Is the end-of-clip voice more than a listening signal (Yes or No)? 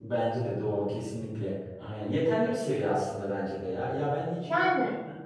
No